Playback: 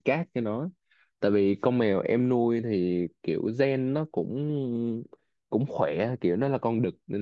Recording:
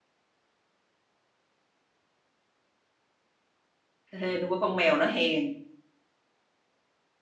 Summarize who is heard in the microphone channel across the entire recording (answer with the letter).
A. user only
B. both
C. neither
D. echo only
A